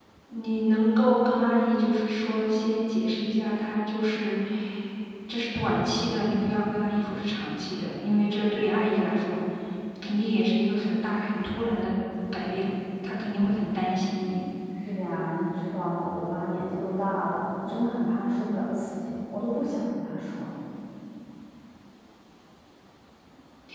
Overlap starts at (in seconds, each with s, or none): none